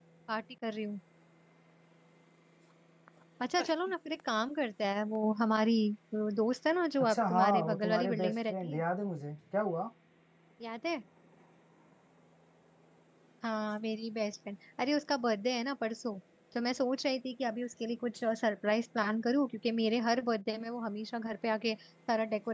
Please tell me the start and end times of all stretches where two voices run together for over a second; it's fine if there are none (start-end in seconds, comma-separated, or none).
7.0-8.8